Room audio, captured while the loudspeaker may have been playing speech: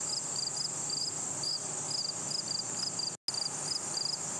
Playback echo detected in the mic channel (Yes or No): No